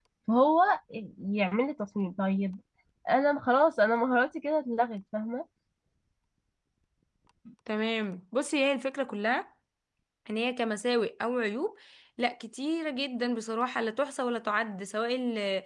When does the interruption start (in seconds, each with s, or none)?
none